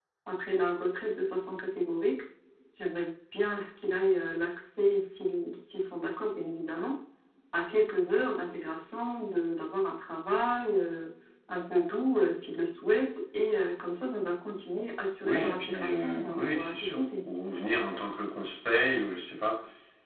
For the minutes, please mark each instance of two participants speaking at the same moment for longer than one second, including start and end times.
15.2-17.0

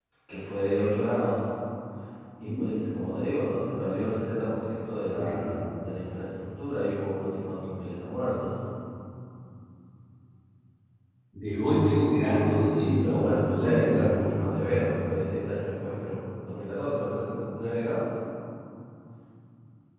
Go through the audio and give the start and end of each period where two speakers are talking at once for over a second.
12.7-14.3

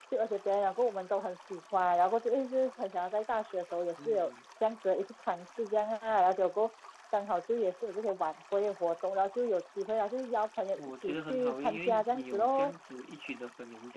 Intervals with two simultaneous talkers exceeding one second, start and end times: 10.8-12.7

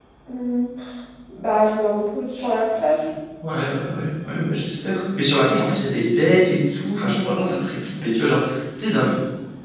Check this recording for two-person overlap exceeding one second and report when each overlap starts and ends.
none

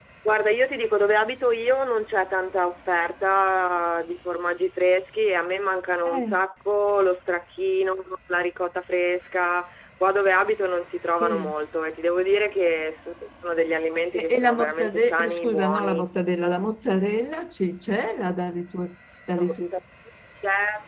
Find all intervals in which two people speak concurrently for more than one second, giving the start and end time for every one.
14.1-16.0

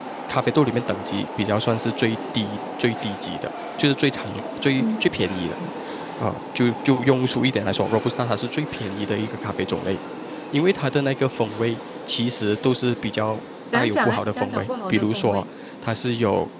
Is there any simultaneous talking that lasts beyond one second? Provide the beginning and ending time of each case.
13.7-15.4

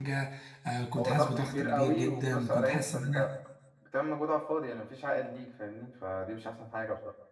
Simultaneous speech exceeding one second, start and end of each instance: 1.0-3.3

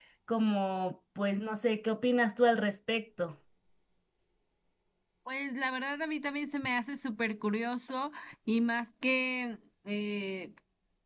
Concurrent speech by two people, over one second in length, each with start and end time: none

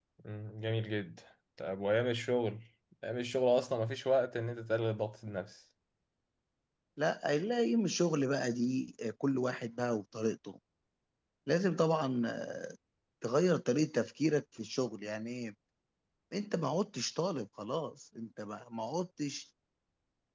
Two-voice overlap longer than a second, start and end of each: none

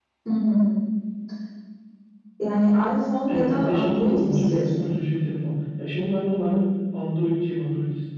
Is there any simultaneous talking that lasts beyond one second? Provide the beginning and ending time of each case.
3.3-4.9

